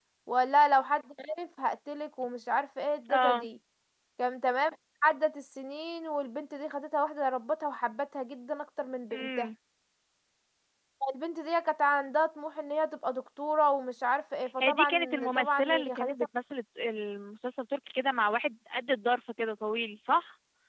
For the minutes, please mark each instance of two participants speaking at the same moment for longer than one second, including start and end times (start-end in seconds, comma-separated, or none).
14.6-16.2